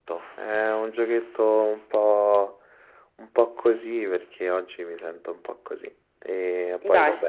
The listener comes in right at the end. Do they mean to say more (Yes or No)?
No